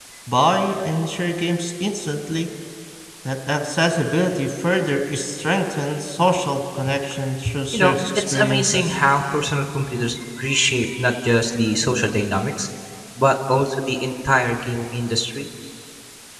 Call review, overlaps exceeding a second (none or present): present